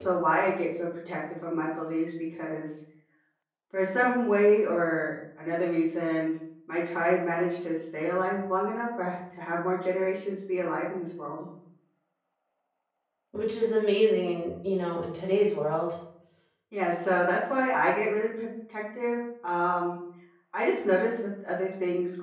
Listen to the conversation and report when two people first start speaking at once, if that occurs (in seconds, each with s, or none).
none